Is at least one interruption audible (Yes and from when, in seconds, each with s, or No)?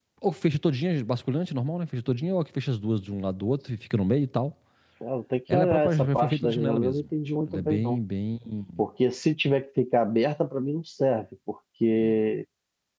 Yes, from 5.5 s